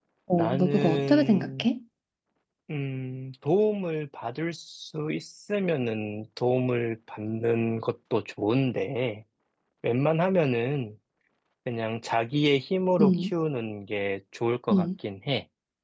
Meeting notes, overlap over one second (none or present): present